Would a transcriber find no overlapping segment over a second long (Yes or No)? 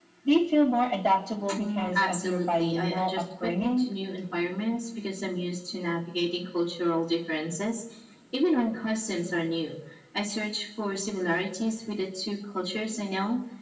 No